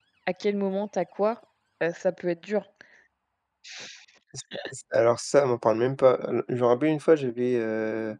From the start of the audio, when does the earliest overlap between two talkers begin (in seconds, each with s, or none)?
none